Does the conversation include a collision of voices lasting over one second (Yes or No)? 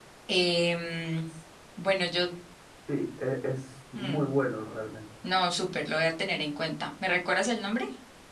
No